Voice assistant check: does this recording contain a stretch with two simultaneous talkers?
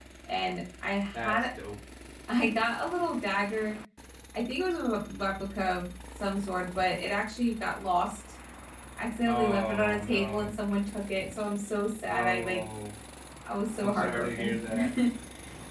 Yes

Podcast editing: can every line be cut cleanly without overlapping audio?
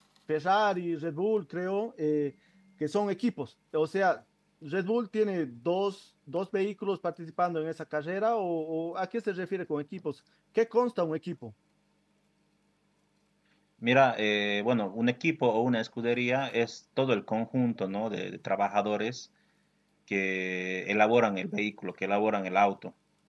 Yes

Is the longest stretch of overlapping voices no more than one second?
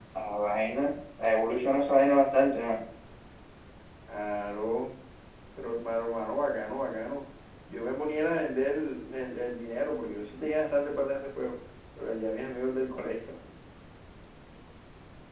Yes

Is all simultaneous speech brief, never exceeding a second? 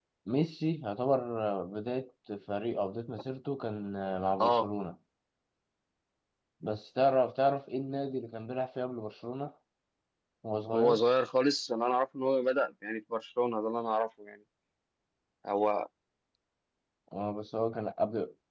Yes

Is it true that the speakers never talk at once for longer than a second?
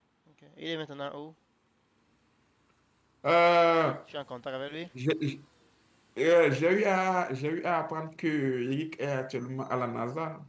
Yes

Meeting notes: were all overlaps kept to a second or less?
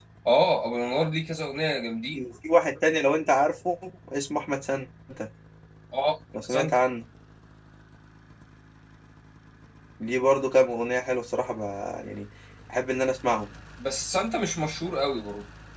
Yes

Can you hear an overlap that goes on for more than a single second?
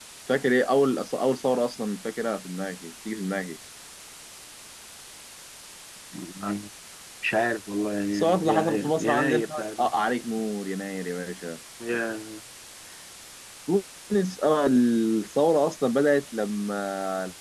Yes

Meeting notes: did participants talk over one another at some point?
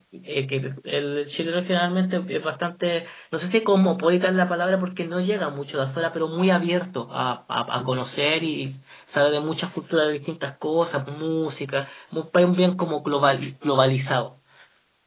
No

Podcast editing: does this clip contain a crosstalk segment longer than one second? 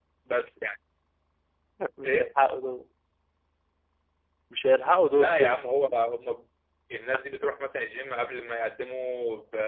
No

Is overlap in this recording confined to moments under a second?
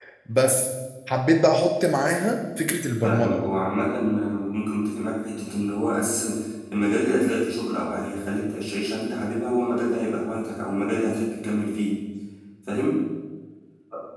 Yes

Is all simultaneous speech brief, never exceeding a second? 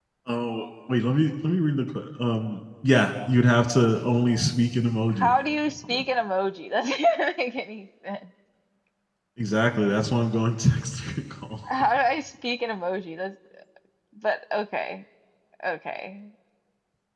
Yes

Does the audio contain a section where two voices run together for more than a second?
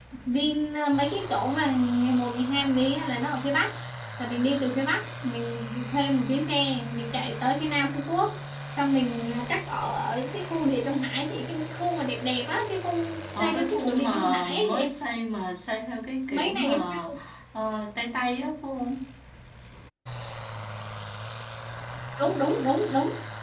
Yes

